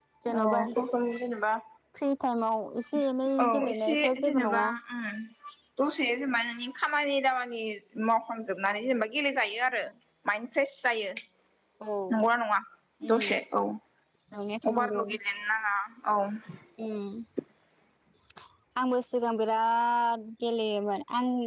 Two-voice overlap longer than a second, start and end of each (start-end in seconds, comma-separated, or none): 3.4-4.7